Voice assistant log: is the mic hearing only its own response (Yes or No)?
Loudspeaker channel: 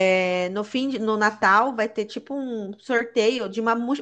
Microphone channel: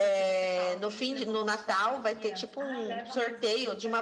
No